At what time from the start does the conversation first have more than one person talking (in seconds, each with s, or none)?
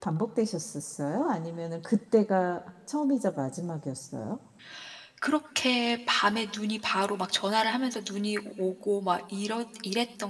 none